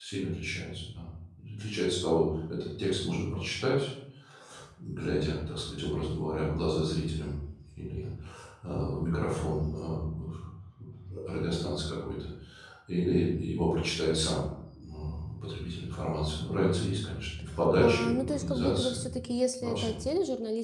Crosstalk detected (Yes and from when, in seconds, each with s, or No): Yes, from 17.8 s